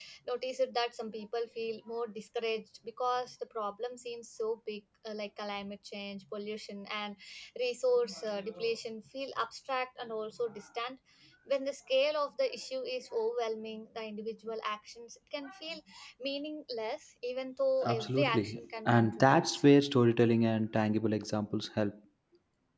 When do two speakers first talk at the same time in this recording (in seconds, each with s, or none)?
17.8 s